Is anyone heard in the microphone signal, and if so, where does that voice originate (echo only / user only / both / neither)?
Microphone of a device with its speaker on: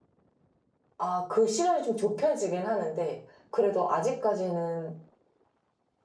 user only